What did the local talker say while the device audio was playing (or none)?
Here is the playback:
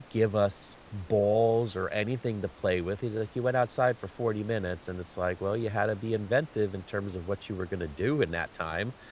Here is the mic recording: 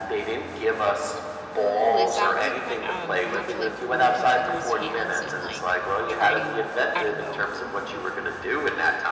Ooh, is that like when um you have to like hold each other's hands and like try to, I don't know,